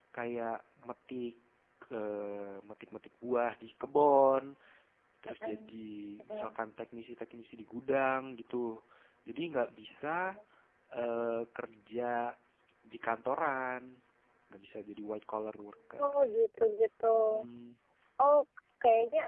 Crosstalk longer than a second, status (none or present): none